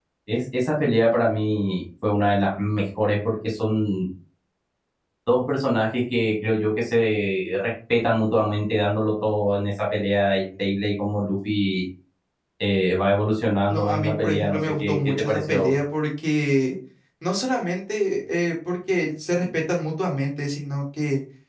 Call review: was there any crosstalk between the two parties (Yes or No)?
Yes